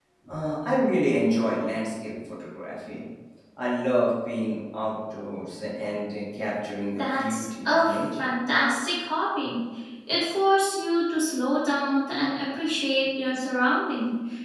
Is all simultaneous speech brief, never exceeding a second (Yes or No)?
No